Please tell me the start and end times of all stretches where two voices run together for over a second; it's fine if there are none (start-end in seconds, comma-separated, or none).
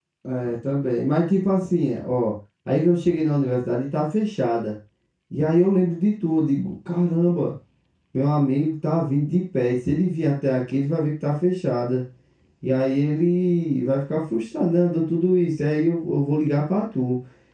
none